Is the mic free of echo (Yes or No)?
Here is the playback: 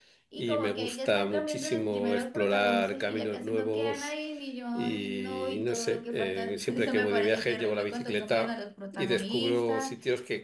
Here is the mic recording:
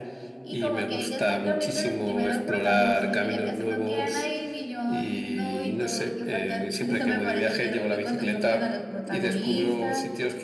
No